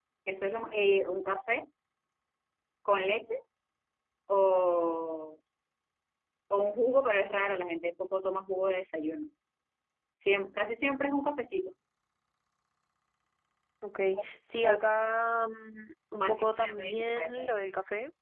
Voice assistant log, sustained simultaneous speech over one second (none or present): present